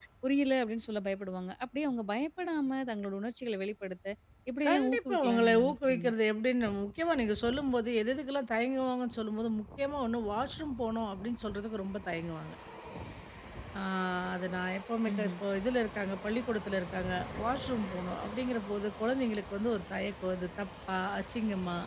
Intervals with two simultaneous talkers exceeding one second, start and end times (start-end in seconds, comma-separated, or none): 4.7-6.1